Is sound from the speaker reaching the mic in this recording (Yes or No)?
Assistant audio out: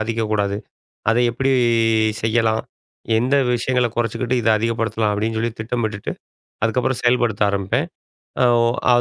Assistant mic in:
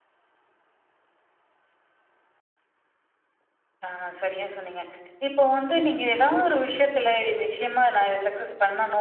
No